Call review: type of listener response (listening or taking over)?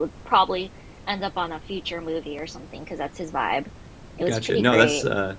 taking over